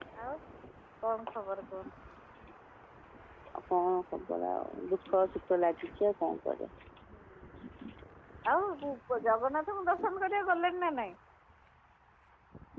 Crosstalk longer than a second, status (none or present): none